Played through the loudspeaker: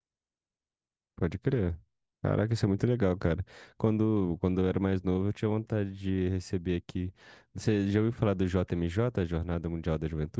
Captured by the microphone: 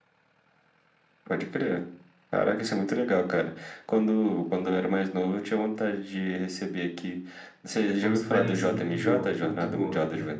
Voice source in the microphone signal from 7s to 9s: both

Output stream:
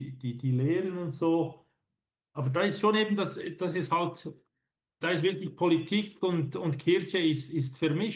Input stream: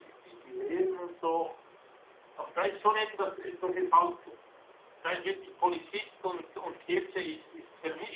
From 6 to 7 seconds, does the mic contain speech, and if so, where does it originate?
echo only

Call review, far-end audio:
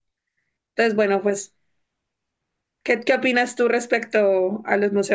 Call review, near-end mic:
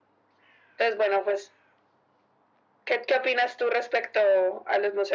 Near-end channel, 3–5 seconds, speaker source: echo only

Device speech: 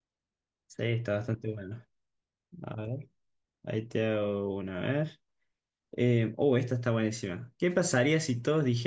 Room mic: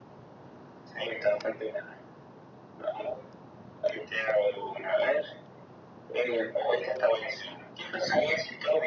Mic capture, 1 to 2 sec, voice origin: echo only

